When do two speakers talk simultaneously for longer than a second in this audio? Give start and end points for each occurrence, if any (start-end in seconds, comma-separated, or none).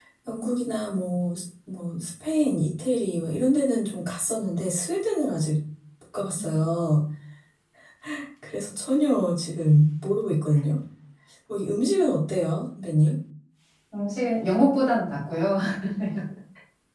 none